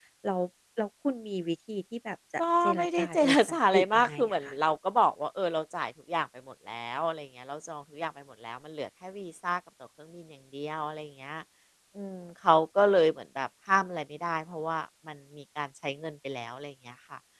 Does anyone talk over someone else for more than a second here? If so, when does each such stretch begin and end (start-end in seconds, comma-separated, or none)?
2.6-4.5